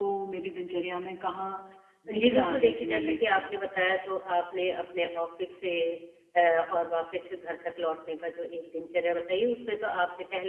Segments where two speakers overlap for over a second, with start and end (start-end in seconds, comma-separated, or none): 2.2-3.5